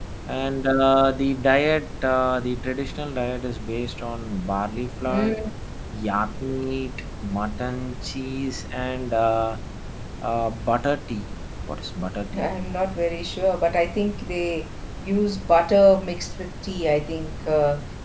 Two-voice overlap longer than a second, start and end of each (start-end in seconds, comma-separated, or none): none